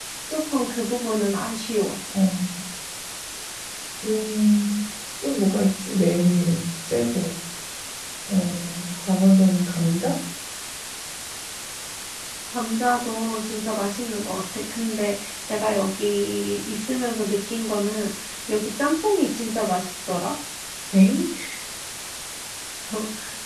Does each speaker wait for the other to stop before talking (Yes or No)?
Yes